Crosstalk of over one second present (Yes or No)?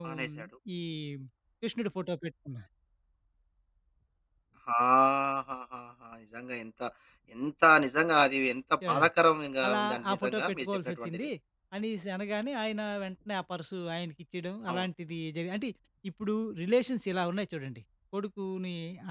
Yes